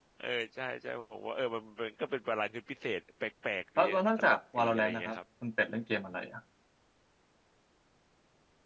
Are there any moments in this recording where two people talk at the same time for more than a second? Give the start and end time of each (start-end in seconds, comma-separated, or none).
3.8-5.2